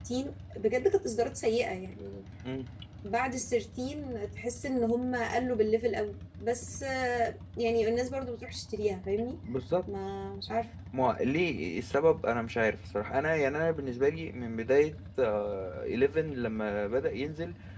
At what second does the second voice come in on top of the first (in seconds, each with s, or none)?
none